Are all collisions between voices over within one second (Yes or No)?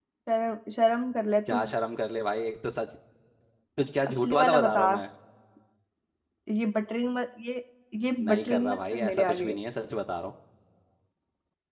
No